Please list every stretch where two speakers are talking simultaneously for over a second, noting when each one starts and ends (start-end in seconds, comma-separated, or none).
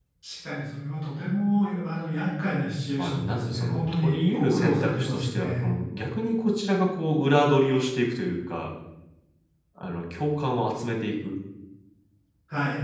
3.0-5.6